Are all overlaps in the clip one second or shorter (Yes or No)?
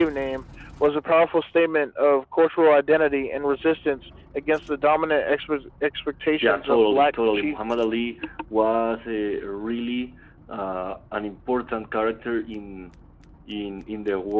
No